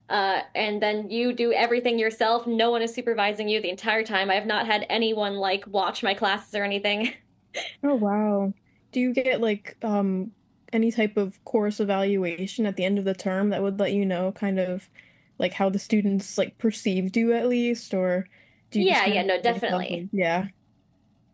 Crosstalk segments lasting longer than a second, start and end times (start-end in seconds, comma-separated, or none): 18.8-20.0